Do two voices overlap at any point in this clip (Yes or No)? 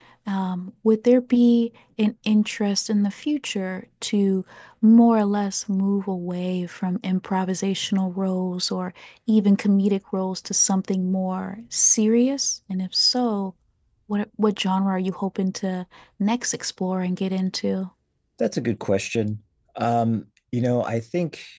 No